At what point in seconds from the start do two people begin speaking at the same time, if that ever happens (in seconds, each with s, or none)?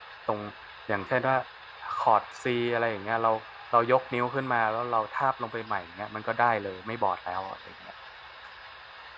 none